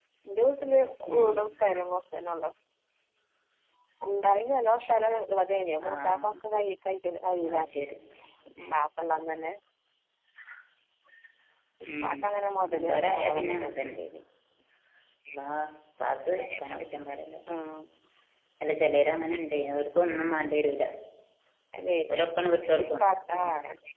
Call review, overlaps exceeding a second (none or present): present